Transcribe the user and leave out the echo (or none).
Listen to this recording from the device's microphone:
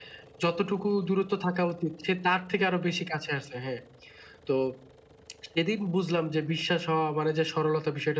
none